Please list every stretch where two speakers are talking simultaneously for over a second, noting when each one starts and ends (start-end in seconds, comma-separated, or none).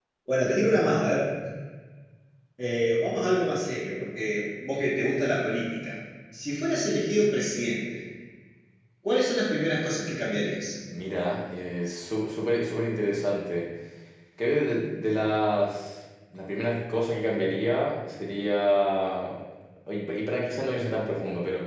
none